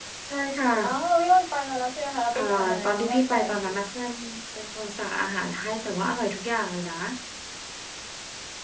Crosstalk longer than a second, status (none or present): present